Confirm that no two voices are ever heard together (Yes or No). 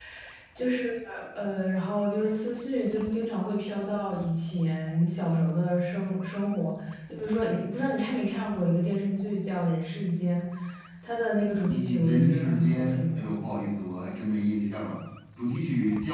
No